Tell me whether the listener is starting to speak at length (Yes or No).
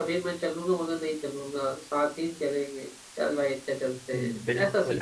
Yes